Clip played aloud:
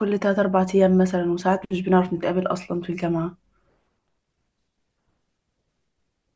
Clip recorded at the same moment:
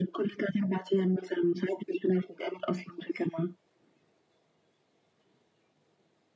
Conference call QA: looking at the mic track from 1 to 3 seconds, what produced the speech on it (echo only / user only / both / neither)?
echo only